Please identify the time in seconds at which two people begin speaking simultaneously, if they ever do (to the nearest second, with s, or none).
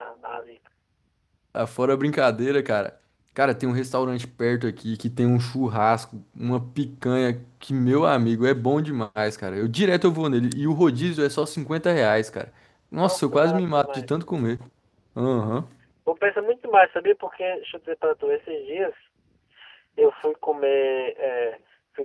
13 s